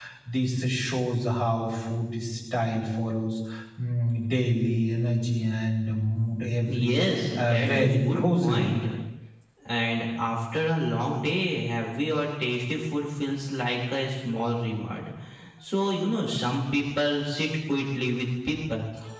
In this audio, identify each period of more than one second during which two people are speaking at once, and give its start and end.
7.4-8.7

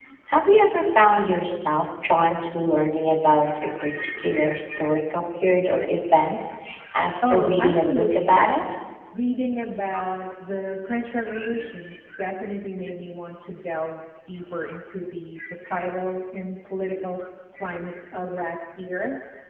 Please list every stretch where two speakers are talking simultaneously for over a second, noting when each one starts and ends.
7.3-8.5

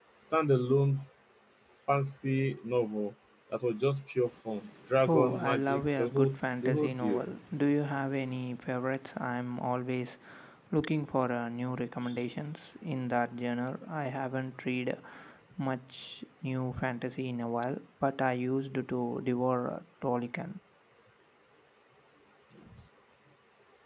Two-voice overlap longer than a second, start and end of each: 5.1-7.2

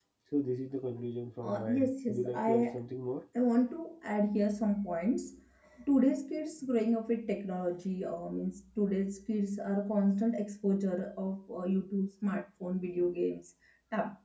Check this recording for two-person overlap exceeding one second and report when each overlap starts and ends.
1.4-2.8

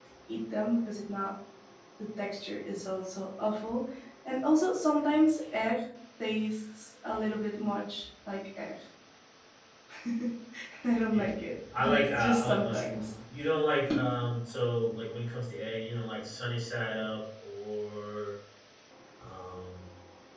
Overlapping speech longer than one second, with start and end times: 11.8-13.0

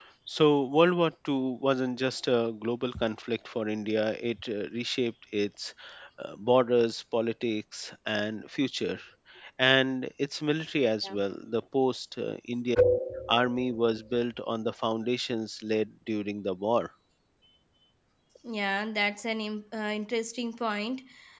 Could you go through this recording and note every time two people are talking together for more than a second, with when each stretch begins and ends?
none

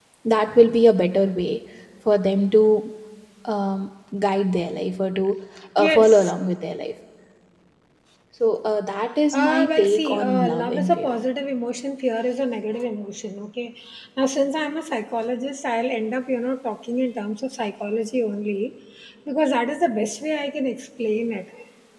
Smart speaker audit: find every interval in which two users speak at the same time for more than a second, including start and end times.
9.3-11.1

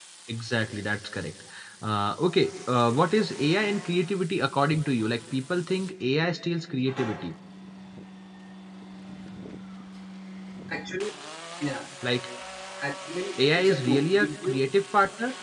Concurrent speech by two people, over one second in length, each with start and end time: 13.4-14.6

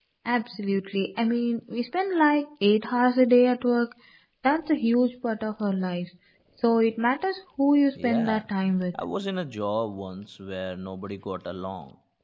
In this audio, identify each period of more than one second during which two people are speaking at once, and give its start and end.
none

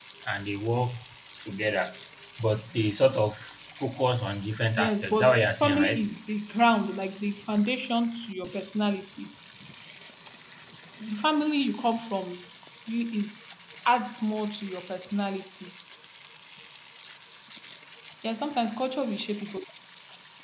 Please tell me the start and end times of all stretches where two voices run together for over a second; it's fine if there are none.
4.8-6.1

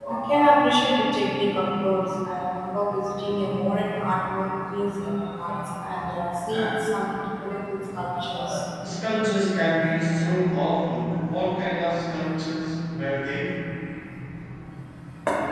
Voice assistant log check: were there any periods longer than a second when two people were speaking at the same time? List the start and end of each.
none

